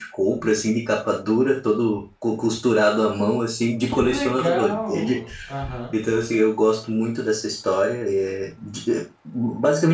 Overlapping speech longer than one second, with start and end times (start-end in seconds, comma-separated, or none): 3.9-5.2